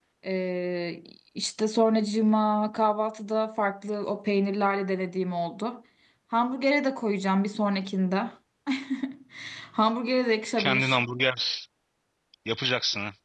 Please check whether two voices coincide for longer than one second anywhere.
No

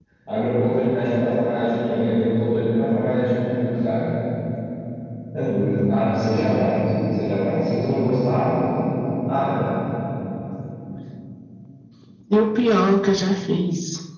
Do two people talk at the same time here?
No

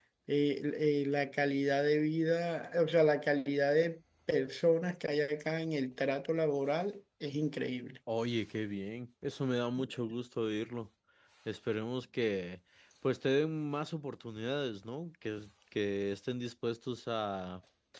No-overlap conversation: Yes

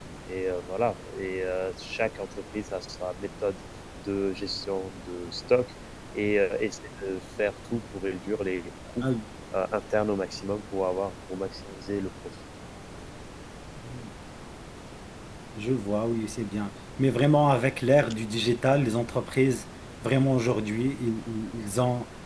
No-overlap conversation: Yes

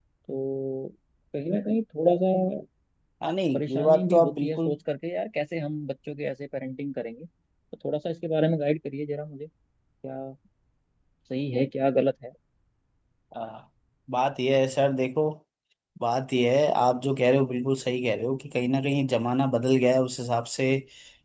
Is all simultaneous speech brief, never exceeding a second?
No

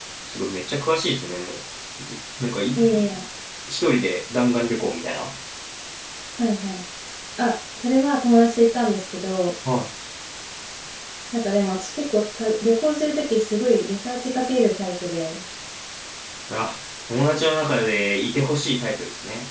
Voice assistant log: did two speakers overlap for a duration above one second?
No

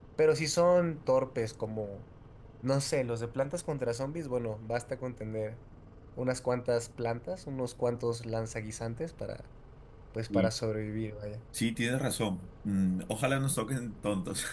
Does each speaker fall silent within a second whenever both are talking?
Yes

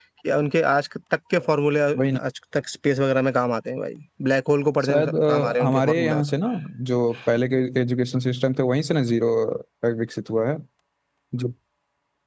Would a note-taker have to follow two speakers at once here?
Yes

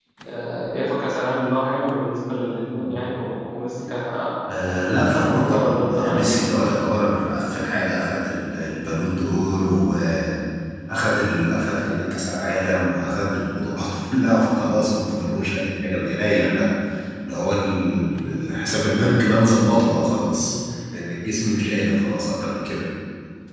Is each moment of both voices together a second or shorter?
No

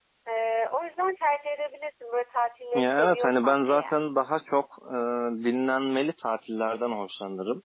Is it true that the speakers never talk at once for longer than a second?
No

